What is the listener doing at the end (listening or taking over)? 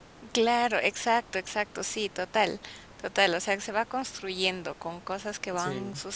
listening